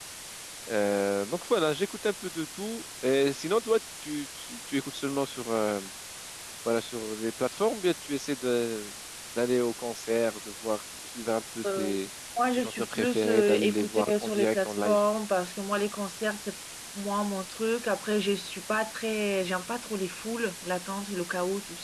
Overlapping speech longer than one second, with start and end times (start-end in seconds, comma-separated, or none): 12.6-15.0